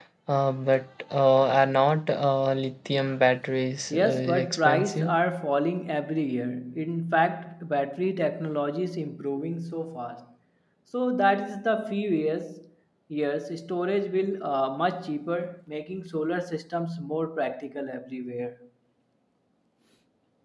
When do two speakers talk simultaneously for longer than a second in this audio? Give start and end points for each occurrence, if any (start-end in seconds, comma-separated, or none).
3.9-5.1